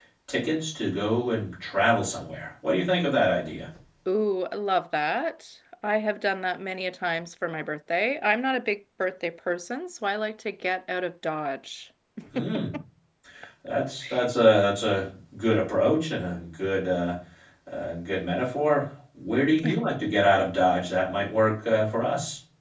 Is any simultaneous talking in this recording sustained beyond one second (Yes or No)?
No